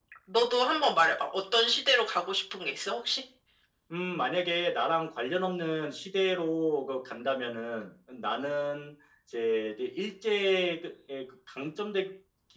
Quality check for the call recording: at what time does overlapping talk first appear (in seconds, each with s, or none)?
none